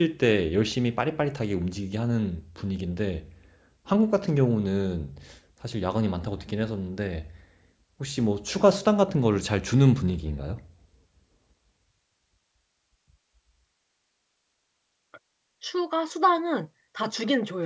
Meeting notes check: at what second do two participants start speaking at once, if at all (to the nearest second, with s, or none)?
none